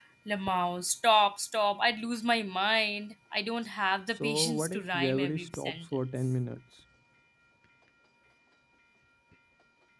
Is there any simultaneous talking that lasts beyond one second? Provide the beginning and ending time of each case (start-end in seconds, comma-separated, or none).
4.2-6.3